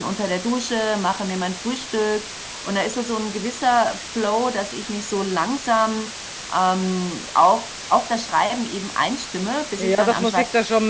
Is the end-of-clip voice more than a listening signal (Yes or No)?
Yes